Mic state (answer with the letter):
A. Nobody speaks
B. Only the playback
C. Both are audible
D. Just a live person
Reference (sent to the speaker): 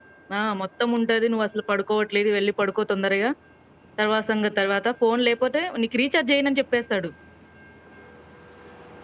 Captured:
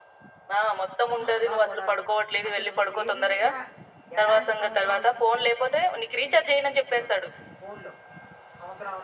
C